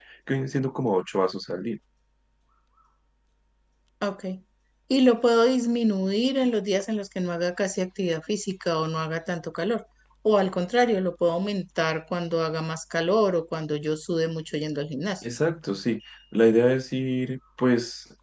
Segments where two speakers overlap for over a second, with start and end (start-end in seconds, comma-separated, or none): none